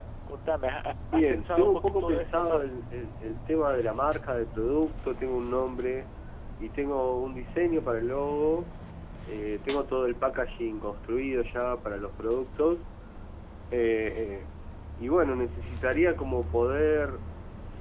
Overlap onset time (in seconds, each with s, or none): 1.1 s